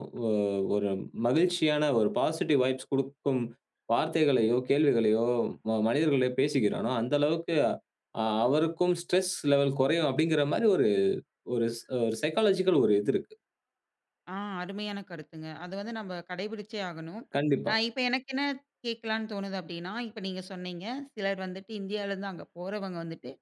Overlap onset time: none

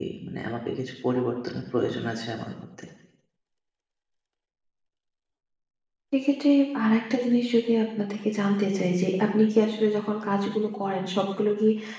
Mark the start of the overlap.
none

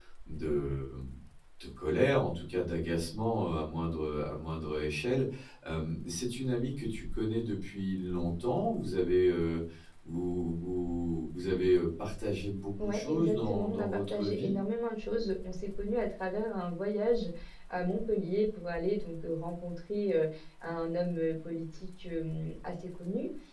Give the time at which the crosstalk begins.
12.8 s

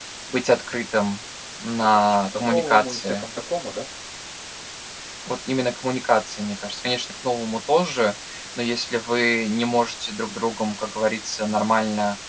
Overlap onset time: 1.7 s

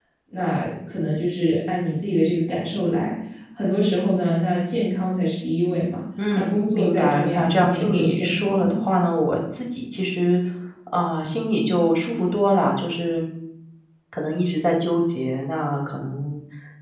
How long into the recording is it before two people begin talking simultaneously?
6.2 s

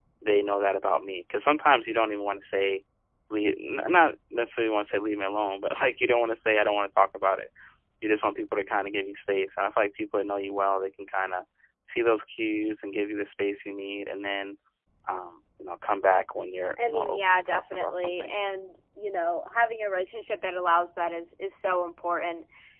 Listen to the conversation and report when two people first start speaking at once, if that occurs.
16.8 s

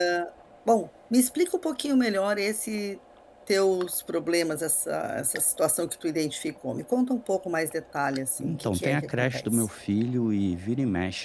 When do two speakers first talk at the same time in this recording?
8.4 s

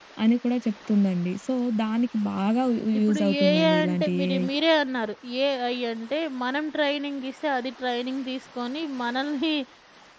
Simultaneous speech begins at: 2.9 s

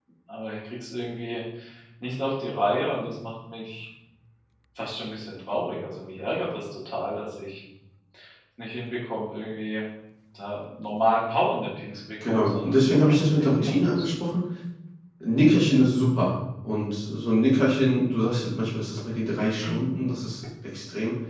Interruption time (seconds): 12.2 s

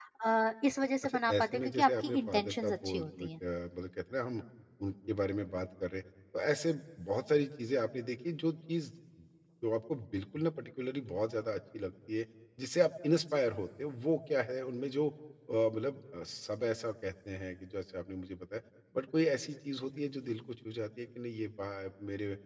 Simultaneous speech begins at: 1.0 s

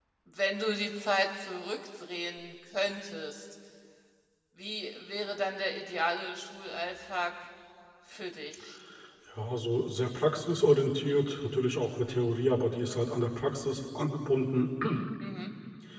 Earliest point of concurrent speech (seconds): none

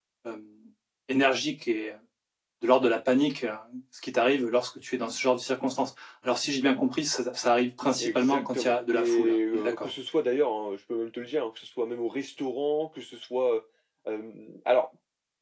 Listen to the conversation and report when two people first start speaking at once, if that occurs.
8.0 s

